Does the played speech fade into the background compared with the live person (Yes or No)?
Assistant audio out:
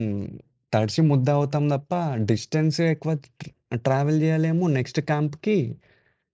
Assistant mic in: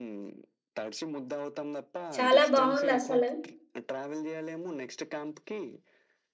Yes